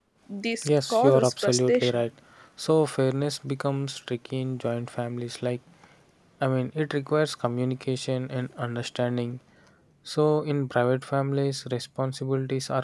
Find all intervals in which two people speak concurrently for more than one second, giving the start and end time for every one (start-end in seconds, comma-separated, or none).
0.6-2.0